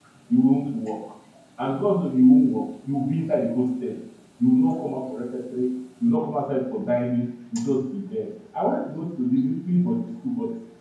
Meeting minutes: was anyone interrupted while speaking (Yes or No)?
No